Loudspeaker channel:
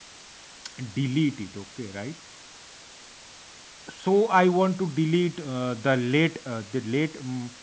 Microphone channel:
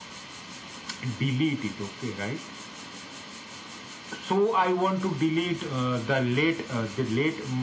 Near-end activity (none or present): none